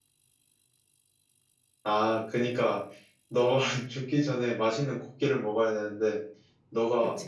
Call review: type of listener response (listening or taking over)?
listening